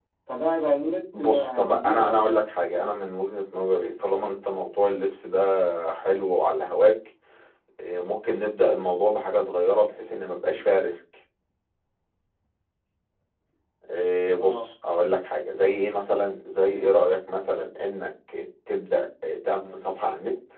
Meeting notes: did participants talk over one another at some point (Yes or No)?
Yes